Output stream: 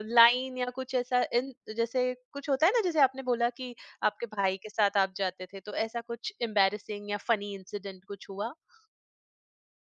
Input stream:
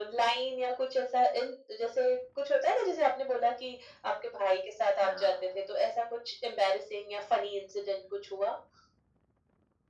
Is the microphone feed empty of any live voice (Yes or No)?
No